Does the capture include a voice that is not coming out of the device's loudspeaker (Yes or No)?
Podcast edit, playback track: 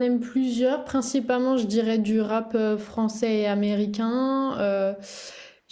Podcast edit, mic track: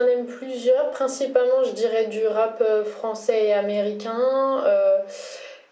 No